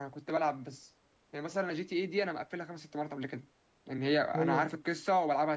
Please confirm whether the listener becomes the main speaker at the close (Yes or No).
No